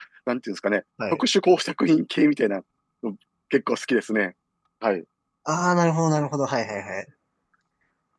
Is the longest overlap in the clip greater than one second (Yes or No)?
No